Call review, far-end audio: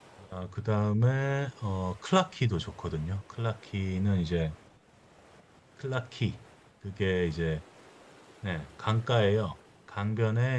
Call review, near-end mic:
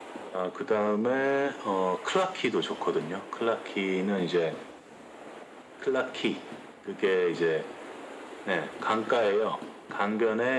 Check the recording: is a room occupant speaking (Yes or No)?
No